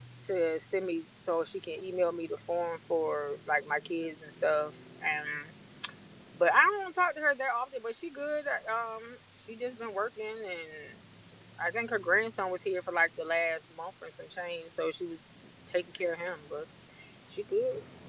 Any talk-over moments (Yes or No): No